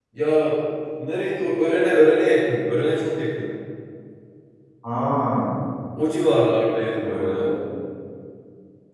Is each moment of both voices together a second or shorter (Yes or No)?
Yes